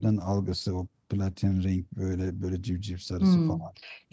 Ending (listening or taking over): taking over